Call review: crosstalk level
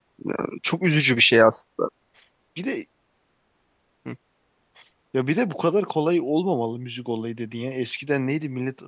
none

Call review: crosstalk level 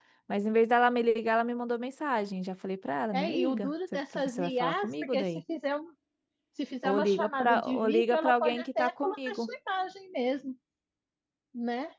present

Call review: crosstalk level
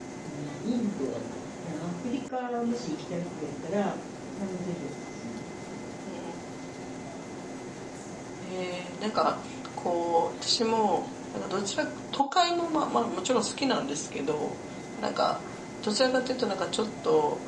none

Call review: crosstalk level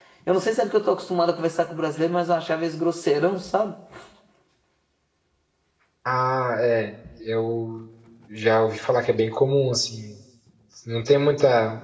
none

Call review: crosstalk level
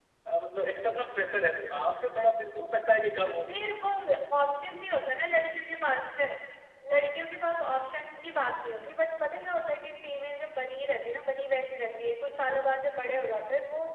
none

